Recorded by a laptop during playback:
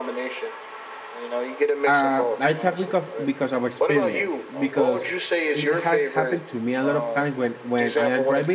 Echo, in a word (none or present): present